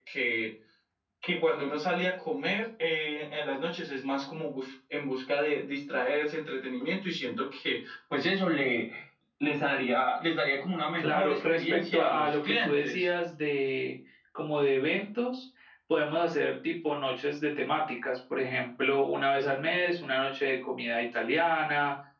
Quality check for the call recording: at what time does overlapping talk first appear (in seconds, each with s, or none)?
11.0 s